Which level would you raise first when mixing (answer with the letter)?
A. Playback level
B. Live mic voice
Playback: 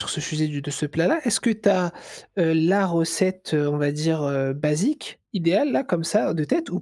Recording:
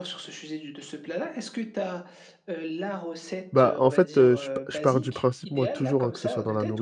A